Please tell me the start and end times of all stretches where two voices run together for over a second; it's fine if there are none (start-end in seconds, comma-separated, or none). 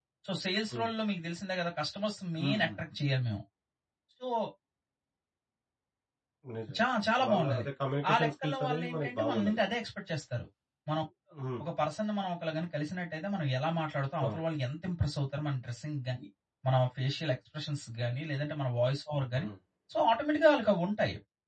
8.1-9.6